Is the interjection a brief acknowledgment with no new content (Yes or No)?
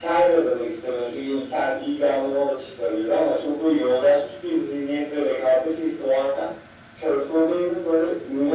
Yes